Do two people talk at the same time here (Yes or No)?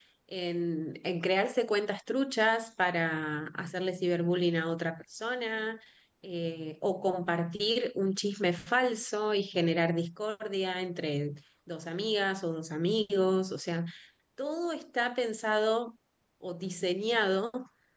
No